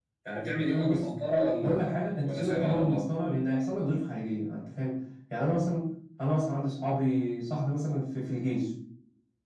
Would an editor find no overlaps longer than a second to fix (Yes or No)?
No